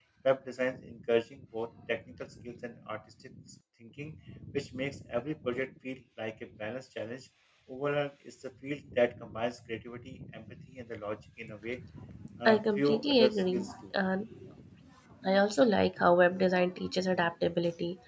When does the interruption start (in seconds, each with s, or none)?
12.4 s